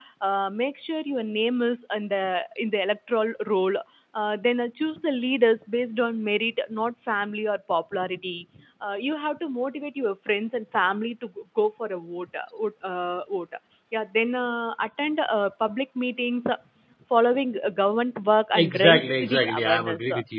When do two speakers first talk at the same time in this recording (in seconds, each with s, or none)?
18.5 s